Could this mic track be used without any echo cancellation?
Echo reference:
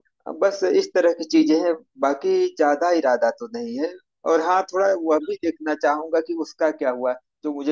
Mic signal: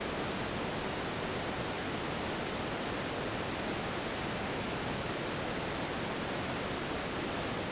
Yes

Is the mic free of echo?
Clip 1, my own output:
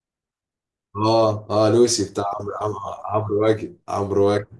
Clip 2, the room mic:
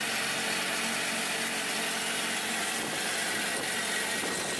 Yes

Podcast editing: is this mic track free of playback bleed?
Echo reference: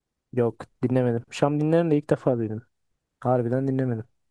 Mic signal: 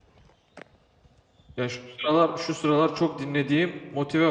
Yes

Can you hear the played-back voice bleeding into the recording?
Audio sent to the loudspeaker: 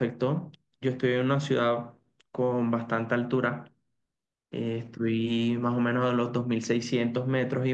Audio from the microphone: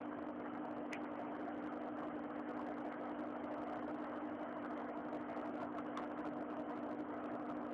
No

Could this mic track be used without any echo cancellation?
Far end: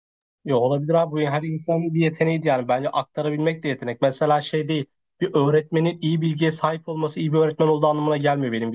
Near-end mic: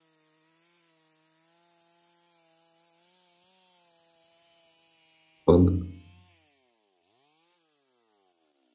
Yes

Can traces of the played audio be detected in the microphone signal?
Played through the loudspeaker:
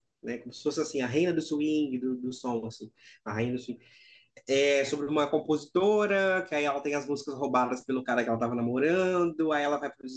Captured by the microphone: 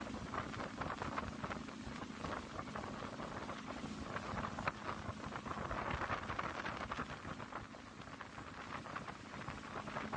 No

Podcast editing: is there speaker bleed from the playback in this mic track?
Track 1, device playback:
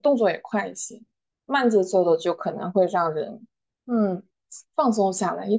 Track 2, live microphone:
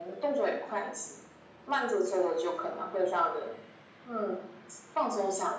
Yes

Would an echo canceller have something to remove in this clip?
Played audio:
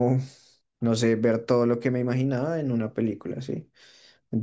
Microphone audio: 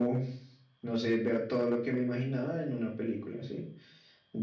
Yes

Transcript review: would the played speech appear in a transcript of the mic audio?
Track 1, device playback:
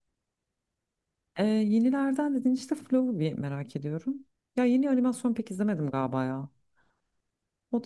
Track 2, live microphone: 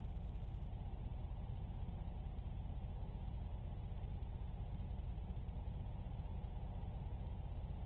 No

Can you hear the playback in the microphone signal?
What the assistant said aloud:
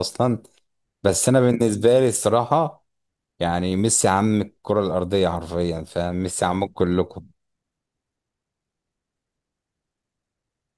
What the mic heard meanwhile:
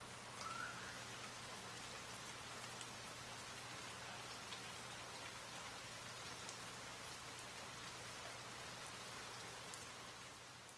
No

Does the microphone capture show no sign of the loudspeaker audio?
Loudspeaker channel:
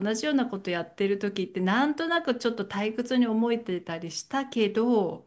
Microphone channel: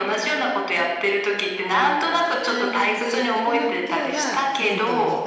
No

